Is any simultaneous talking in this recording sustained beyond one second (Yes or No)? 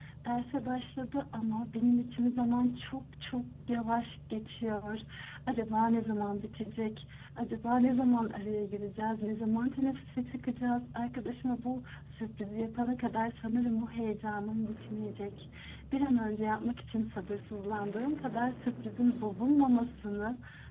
No